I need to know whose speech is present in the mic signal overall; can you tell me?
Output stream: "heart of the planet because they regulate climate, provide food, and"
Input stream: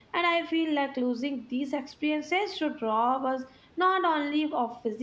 user only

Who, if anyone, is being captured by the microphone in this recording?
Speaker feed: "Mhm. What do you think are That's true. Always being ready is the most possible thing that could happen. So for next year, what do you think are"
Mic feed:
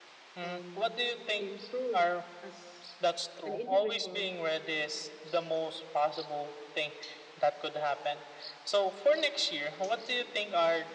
both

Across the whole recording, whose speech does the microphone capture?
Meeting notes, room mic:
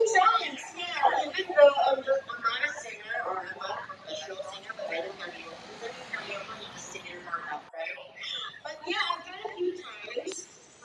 echo only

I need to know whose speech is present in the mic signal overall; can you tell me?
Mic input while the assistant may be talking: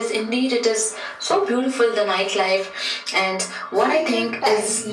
both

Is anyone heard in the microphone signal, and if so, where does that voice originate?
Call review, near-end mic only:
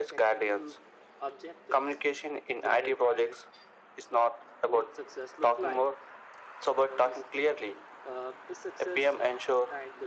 both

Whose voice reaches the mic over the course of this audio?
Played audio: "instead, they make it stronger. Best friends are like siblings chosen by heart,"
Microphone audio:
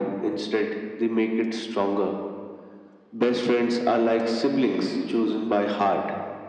echo only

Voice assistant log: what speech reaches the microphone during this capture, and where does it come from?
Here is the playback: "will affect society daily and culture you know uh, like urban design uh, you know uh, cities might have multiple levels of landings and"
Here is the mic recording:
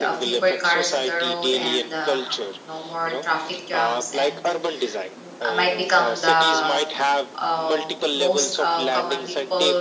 both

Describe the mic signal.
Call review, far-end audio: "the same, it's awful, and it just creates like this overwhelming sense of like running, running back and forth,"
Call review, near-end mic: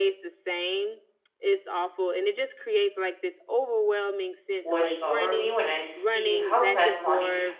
both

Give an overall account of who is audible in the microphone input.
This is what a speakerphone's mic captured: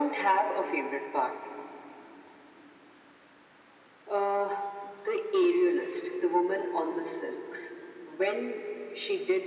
echo only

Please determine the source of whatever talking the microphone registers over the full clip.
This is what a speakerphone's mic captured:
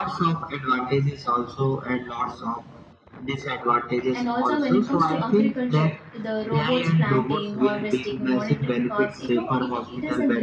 both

